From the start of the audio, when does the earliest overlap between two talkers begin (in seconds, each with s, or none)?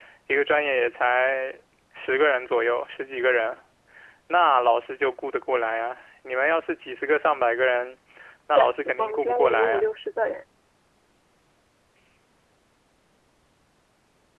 8.5 s